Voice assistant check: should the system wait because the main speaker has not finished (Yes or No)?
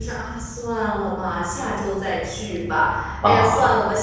Yes